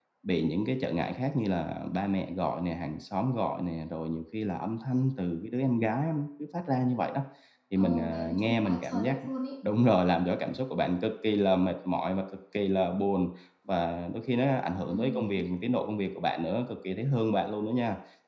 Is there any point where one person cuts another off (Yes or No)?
Yes